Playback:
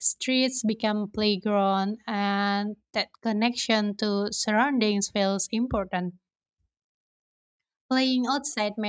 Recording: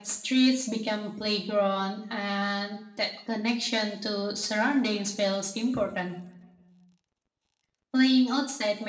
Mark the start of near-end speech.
none

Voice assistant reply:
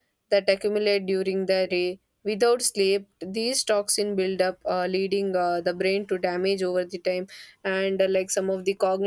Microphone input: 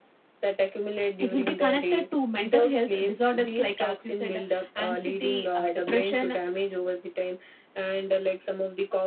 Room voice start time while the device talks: 1.2 s

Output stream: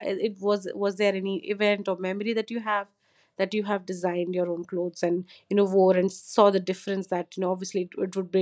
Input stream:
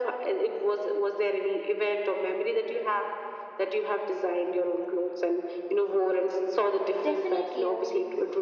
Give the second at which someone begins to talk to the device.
7.0 s

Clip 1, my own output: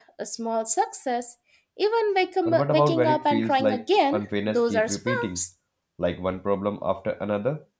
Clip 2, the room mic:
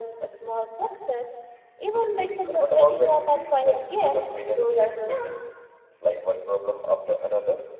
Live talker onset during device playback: none

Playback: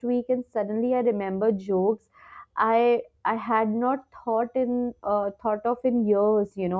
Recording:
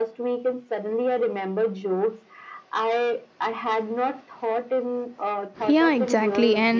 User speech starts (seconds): 5.7 s

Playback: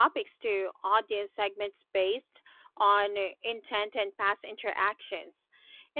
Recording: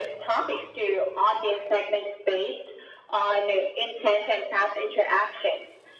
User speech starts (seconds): none

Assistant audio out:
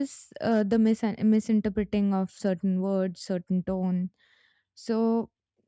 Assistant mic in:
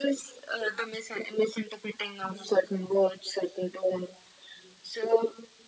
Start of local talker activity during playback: none

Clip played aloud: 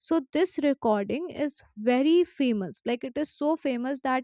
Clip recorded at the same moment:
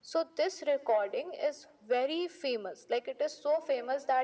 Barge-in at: none

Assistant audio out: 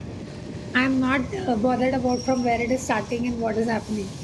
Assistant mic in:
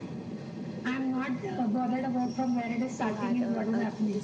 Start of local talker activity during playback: 3.0 s

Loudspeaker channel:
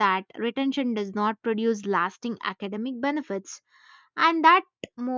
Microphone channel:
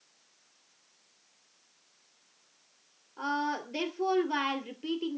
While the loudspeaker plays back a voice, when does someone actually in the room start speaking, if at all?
3.2 s

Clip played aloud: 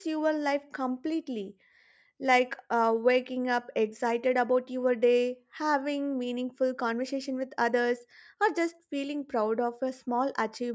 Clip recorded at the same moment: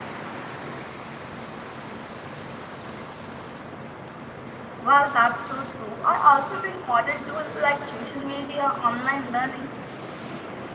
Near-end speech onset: 4.8 s

